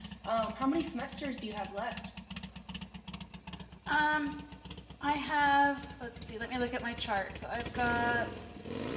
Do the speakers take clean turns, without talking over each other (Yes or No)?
Yes